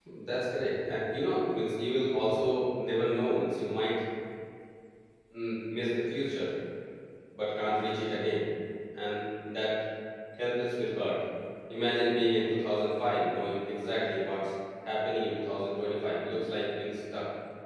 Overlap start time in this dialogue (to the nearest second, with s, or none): none